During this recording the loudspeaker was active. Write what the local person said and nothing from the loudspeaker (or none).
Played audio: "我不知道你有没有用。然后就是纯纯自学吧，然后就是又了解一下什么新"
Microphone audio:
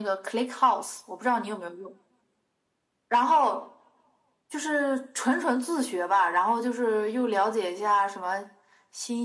none